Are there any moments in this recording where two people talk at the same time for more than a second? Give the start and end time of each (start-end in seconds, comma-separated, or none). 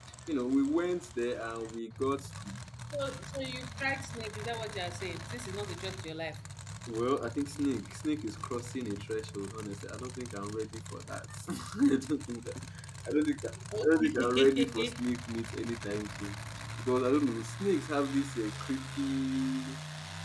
13.8-15.0